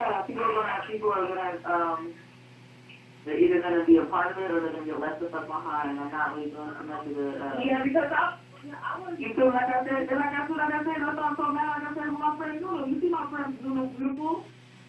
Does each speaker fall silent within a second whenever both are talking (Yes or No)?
Yes